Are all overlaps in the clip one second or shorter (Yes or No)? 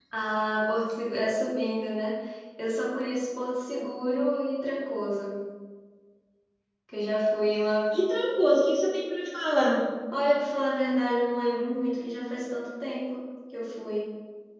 Yes